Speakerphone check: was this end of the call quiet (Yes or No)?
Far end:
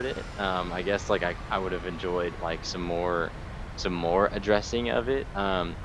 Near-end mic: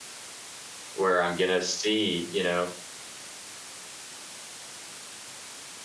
No